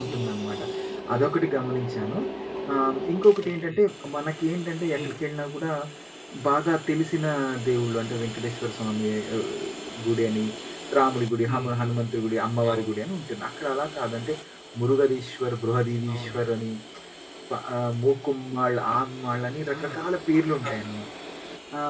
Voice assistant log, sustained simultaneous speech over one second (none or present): none